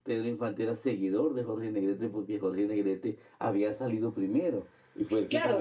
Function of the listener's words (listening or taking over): taking over